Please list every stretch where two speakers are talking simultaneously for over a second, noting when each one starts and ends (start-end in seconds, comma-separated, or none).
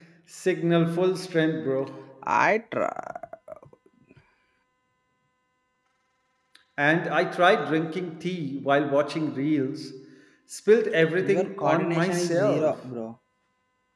11.2-12.8